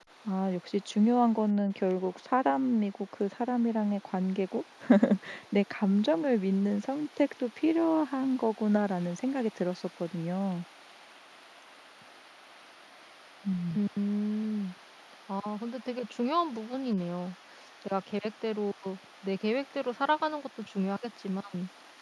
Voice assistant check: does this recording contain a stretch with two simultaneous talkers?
No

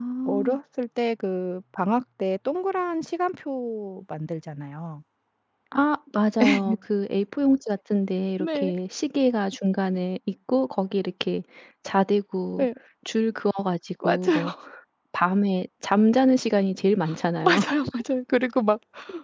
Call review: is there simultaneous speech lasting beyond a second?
No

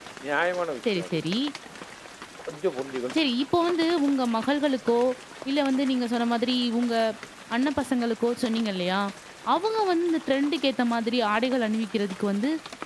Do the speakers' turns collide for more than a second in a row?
No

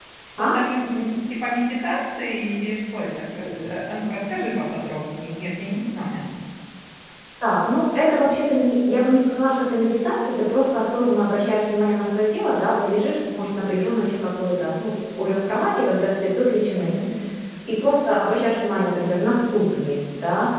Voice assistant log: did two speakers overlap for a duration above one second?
No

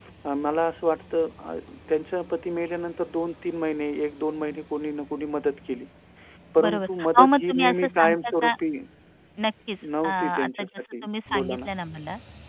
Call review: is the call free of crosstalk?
No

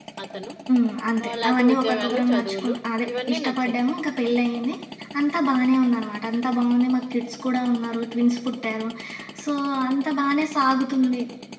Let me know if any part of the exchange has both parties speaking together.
Yes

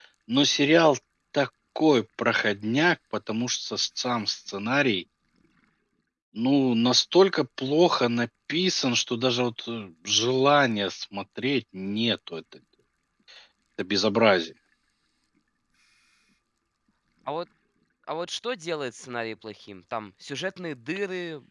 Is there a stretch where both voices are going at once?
No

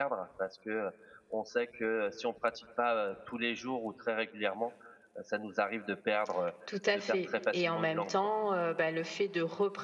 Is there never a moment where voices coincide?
No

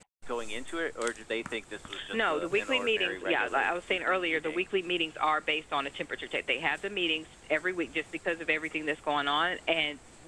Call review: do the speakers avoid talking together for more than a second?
No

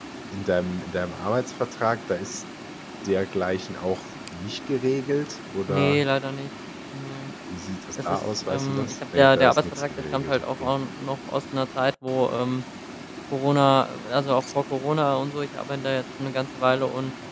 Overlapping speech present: Yes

